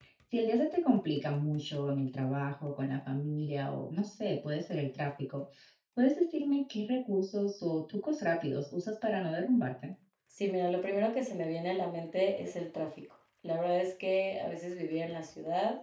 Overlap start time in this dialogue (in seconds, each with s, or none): none